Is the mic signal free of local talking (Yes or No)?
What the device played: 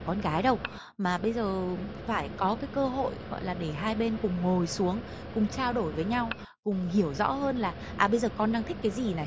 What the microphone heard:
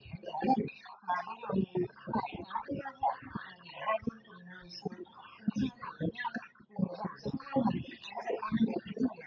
Yes